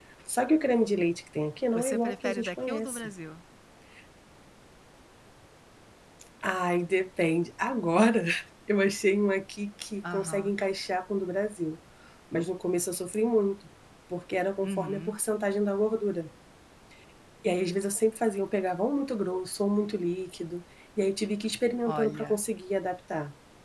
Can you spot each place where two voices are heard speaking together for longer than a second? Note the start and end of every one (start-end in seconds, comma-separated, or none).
1.7-3.1